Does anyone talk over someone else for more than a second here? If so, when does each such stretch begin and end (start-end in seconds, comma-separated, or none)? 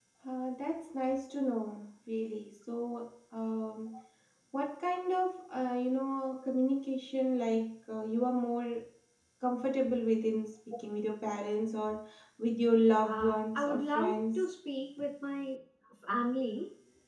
13.0-14.5